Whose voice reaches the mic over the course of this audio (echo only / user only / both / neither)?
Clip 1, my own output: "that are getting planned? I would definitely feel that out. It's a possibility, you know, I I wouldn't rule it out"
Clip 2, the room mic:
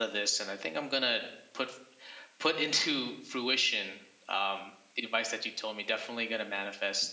user only